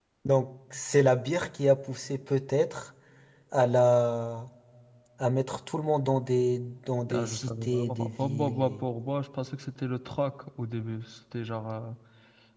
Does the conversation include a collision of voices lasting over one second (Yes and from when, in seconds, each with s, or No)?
Yes, from 7.1 s